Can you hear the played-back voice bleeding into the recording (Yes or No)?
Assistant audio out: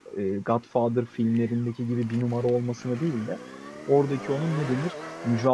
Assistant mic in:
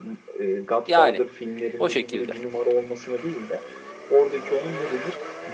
Yes